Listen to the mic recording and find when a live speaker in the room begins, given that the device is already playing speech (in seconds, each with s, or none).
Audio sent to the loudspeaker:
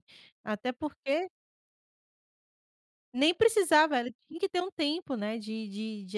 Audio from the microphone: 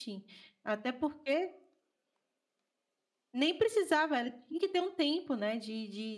none